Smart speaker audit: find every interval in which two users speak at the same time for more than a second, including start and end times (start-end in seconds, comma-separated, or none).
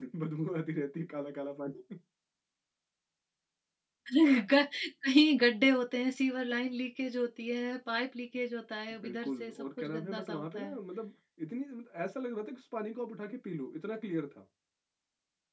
9.0-10.8